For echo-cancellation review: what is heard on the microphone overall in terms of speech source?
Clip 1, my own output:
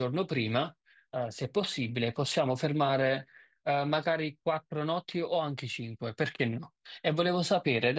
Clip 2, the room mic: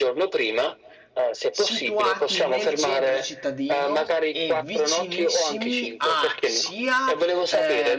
both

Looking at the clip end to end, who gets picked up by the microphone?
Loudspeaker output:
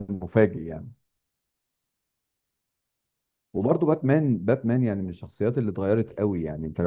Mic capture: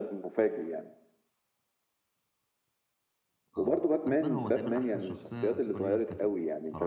both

